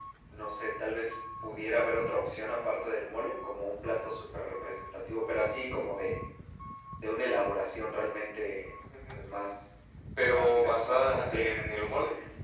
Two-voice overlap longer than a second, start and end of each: 10.3-11.7

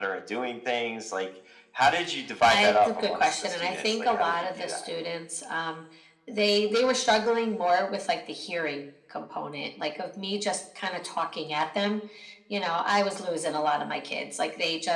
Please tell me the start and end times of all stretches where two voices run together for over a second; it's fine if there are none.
2.5-4.8

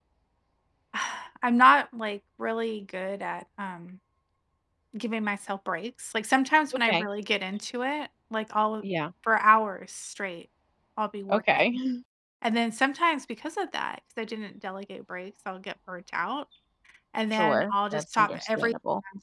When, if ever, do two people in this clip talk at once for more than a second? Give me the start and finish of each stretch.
17.3-18.7

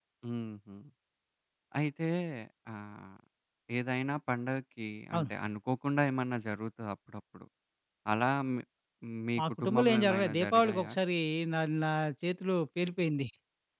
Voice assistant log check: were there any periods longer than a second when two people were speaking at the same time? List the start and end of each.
9.4-10.9

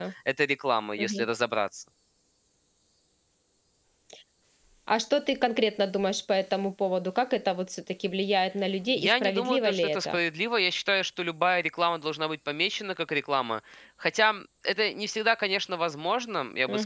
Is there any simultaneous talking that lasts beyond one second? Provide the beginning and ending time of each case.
8.9-10.2

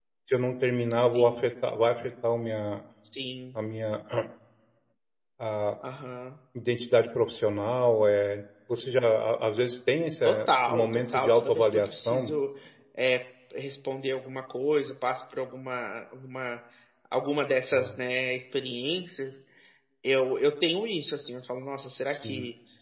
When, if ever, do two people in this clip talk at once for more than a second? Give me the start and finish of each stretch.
10.2-12.3

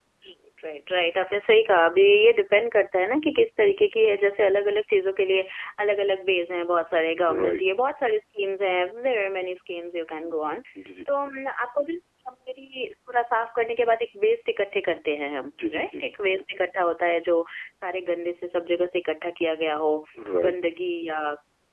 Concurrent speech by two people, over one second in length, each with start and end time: none

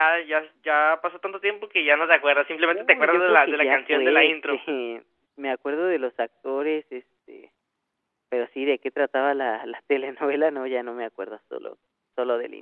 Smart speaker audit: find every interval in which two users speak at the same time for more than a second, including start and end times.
2.7-4.6

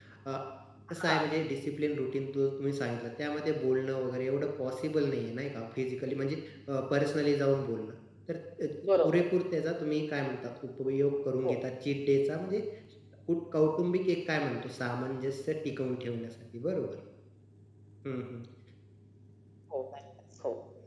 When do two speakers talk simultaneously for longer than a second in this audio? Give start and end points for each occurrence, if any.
none

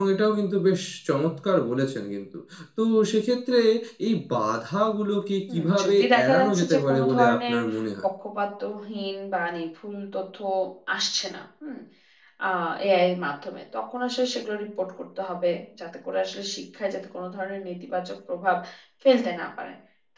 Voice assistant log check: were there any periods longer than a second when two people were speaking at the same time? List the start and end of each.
5.5-7.6

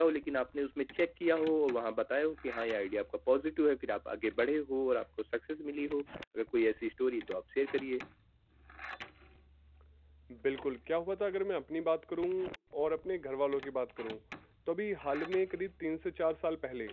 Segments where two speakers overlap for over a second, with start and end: none

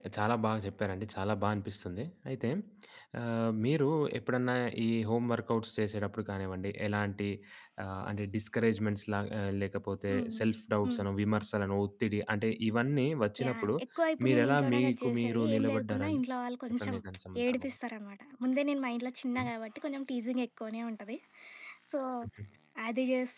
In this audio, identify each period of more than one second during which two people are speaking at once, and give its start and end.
14.2-16.2

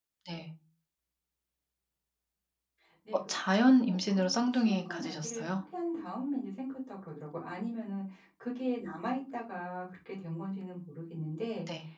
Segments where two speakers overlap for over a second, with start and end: 3.8-5.4

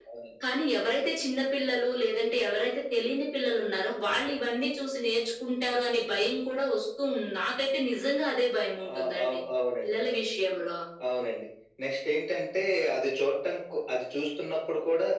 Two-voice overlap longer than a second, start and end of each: none

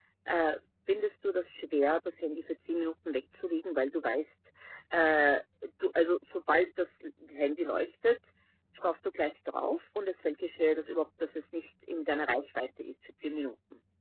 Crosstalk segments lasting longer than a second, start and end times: none

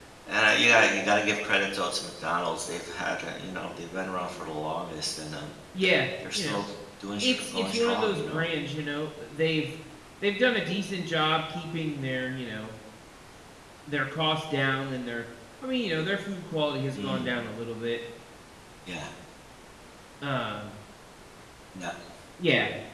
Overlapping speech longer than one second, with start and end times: 7.2-8.4

